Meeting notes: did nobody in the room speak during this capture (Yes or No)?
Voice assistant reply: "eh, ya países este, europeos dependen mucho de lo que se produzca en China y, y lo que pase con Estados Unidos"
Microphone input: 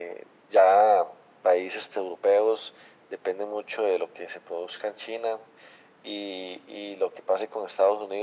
Yes